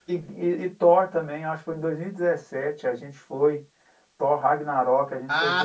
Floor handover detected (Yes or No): Yes